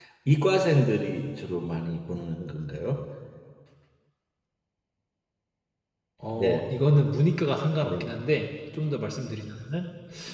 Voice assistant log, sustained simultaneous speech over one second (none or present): none